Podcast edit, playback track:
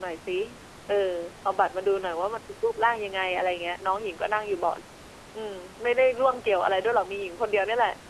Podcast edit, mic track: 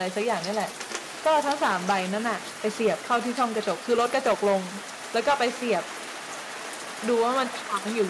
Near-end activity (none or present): present